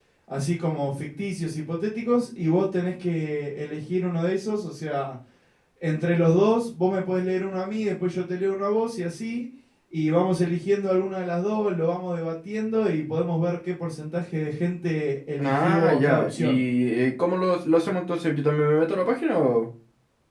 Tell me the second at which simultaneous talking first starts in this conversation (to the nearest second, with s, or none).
15 s